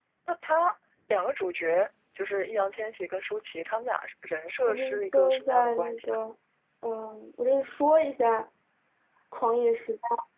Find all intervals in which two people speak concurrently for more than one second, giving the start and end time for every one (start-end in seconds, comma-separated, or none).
4.7-6.2